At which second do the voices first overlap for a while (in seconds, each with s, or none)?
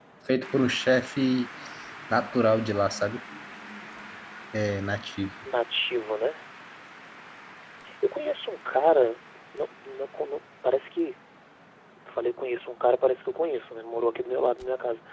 none